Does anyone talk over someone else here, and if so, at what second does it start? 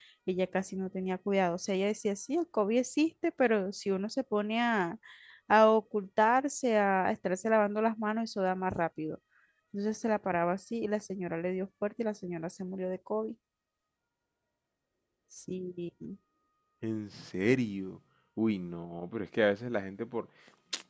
none

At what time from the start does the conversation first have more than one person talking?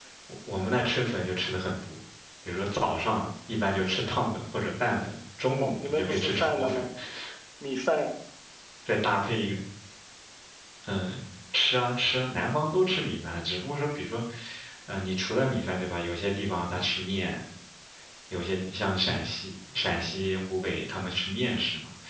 5.6 s

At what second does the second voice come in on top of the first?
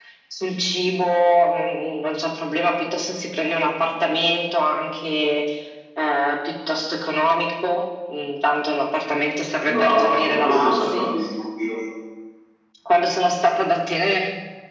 9.6 s

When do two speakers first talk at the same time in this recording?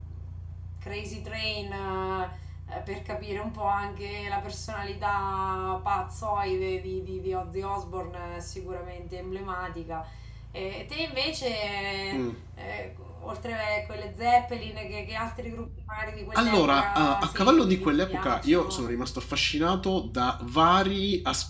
16.4 s

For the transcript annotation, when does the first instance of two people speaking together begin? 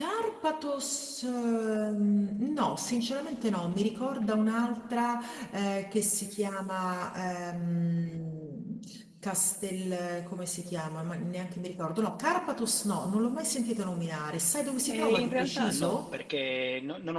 14.9 s

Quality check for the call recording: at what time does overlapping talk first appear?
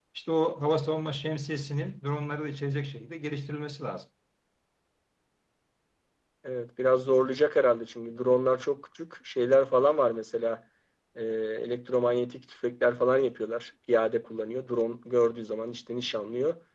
none

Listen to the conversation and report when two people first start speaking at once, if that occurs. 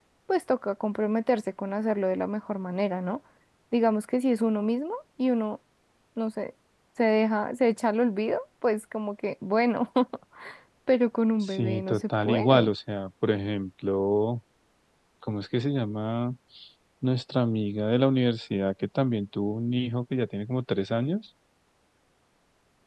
11.4 s

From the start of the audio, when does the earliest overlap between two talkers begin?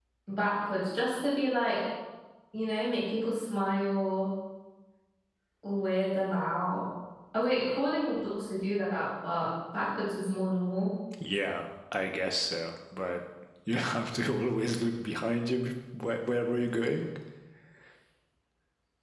none

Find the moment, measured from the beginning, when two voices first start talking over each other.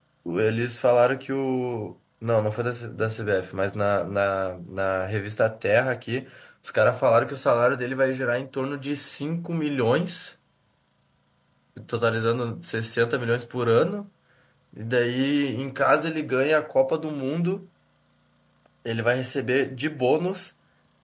none

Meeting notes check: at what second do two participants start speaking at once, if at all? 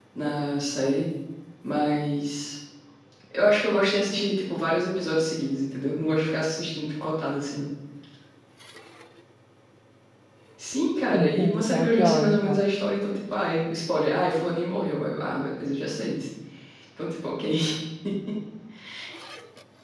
11.1 s

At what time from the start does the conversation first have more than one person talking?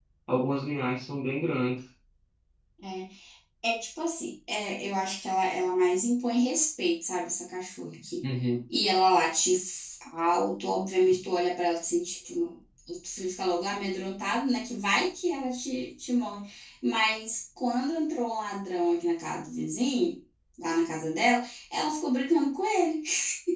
none

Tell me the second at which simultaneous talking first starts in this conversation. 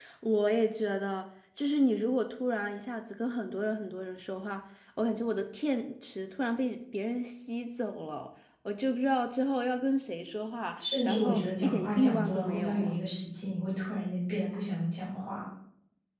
10.8 s

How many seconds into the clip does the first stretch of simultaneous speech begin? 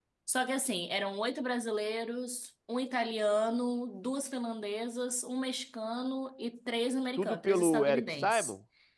7.2 s

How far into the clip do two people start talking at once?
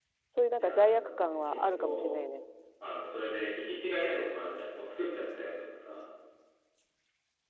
0.6 s

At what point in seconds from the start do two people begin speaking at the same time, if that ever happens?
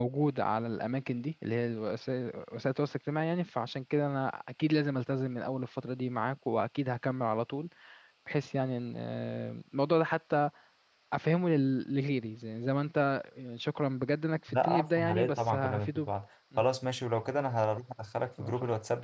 14.5 s

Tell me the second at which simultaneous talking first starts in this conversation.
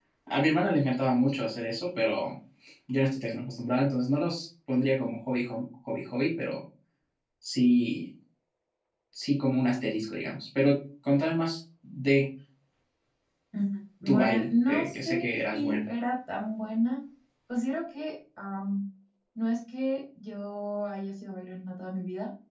14.1 s

